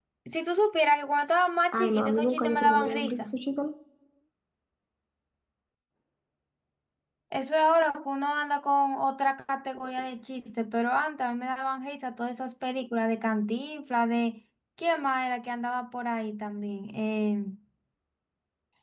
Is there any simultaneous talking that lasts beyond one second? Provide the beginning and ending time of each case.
1.7-3.4

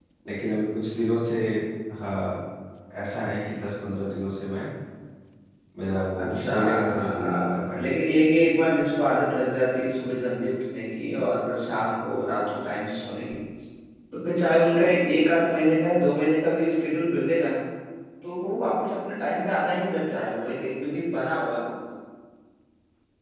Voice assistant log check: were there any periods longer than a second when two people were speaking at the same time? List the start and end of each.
6.2-8.0

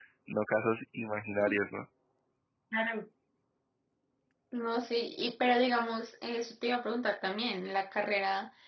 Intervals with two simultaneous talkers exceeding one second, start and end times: none

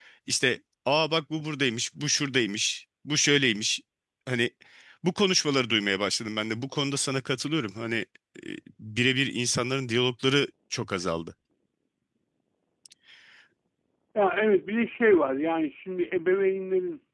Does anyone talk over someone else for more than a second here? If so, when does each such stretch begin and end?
none

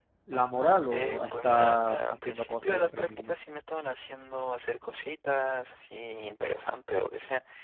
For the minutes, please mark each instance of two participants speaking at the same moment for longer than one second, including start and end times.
0.9-3.3

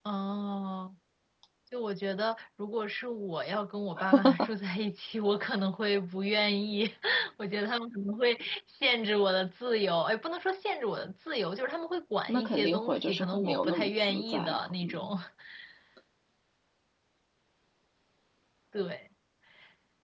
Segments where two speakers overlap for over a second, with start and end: 12.3-14.6

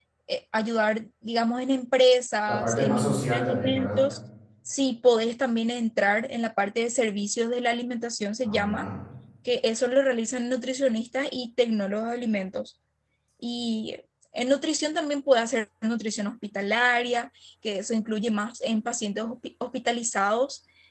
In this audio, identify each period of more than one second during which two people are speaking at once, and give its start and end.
2.5-4.0

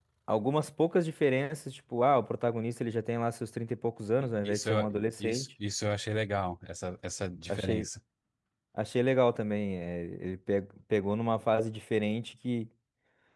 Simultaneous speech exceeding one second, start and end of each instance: 4.2-5.5

